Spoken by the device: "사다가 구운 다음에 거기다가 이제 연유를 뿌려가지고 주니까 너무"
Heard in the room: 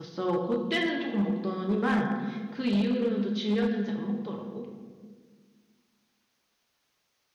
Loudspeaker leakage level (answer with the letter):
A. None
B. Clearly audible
A